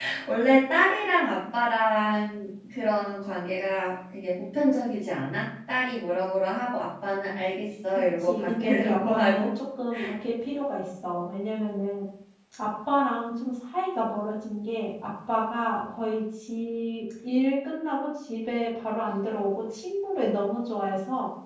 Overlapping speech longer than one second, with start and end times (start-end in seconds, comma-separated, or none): 8.2-9.5